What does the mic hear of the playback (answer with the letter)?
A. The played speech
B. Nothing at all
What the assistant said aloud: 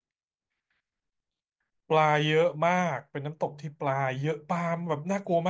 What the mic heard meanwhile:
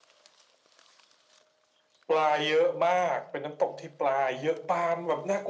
A